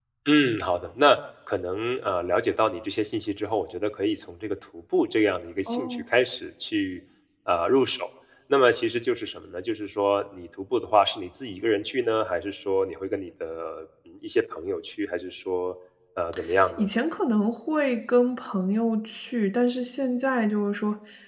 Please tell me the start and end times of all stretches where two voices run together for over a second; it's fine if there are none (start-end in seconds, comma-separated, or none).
none